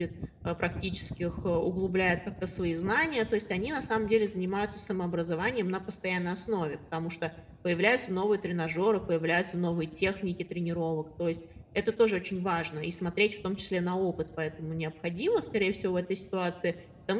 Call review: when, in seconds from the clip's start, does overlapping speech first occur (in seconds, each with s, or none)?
none